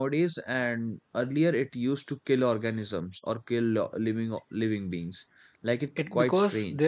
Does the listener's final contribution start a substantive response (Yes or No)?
Yes